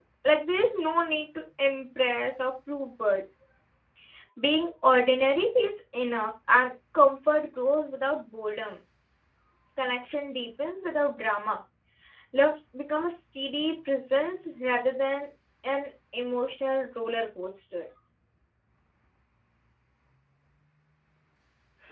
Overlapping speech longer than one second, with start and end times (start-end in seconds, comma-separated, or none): none